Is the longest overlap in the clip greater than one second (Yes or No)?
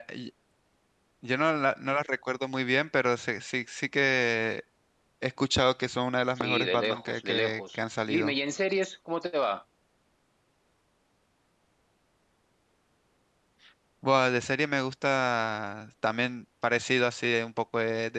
Yes